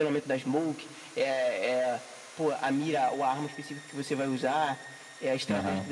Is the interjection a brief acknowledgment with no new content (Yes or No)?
Yes